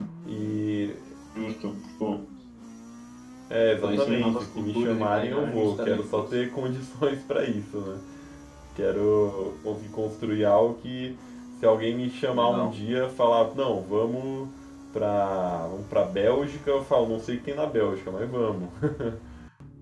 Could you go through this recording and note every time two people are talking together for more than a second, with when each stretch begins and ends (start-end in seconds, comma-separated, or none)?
3.8-6.4